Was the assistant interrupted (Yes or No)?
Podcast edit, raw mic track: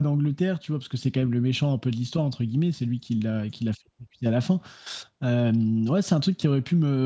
Yes